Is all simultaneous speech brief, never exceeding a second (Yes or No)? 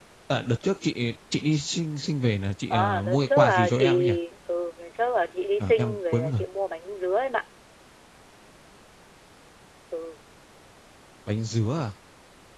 No